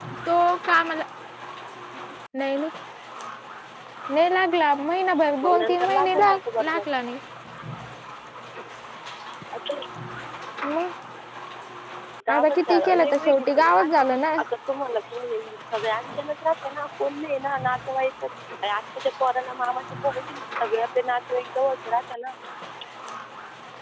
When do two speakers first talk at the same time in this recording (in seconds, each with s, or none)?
5.4 s